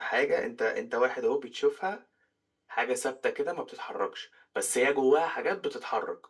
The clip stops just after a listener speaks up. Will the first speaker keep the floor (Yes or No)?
Yes